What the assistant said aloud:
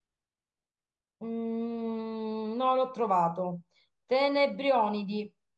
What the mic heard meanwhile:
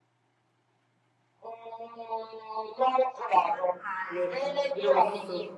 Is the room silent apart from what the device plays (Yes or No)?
No